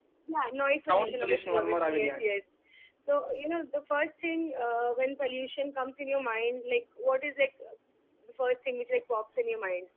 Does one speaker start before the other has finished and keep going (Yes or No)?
Yes